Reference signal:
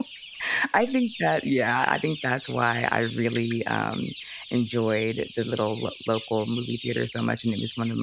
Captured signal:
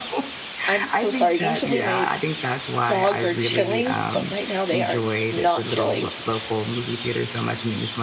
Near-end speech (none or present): present